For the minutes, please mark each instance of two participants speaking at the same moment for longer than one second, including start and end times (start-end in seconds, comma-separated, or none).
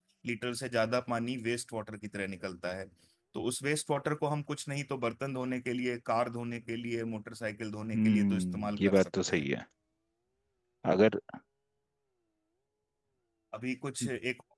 7.9-9.5